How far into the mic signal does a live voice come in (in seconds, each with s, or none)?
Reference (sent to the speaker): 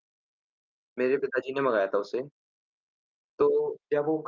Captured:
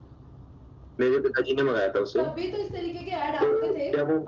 2.2 s